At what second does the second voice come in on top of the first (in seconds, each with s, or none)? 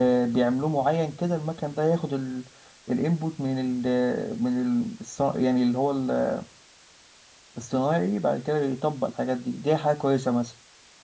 none